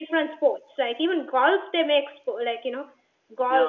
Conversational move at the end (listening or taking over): listening